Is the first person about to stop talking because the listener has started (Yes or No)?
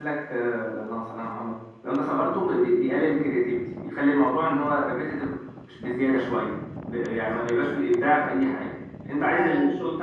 No